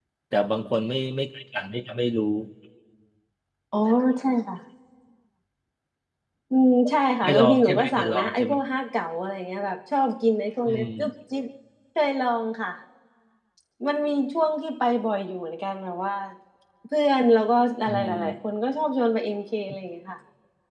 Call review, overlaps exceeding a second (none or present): present